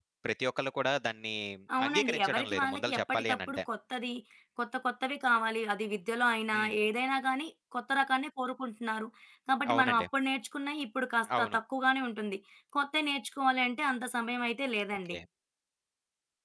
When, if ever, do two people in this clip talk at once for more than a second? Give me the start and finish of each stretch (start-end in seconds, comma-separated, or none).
1.9-3.6